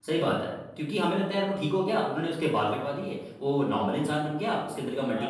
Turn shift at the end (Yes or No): No